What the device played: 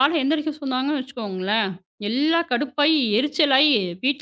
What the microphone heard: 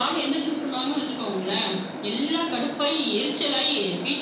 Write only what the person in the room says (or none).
none